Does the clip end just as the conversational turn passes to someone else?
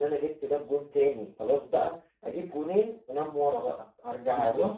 No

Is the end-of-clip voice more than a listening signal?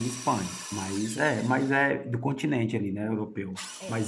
No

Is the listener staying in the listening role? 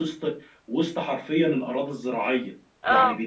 Yes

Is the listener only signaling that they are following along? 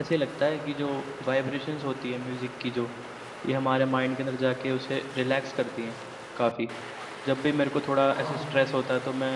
Yes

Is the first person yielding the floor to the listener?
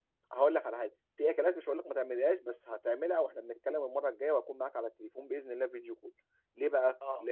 No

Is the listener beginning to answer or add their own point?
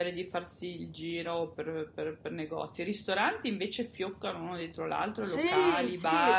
Yes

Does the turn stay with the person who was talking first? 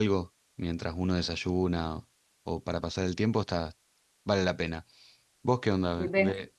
No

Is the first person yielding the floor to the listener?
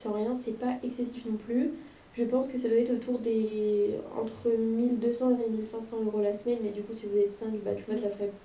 No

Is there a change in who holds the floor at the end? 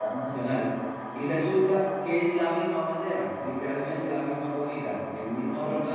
No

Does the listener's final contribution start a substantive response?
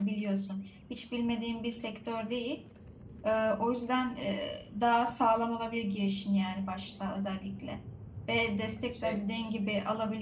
No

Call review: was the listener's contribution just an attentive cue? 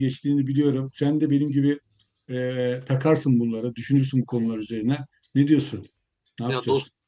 No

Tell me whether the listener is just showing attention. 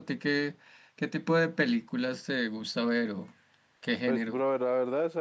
No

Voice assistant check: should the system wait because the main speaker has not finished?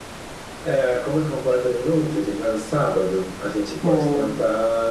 Yes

